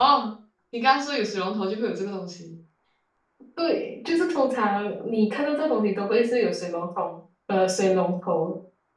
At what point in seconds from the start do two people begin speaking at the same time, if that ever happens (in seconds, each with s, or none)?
none